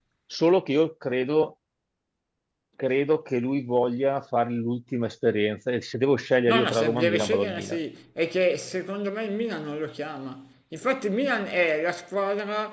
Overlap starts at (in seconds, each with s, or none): 6.5 s